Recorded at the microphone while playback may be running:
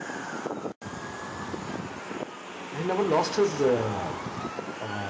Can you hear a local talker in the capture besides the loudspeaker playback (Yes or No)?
Yes